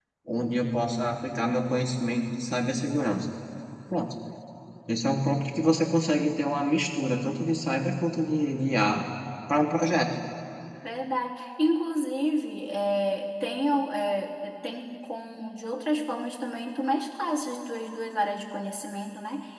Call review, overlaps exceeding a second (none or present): none